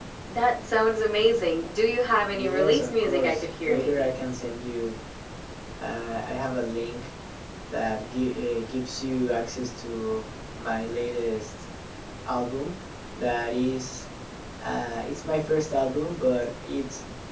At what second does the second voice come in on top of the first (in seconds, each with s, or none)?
2.3 s